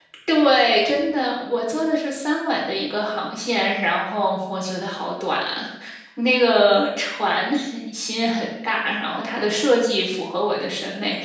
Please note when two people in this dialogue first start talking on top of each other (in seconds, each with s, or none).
none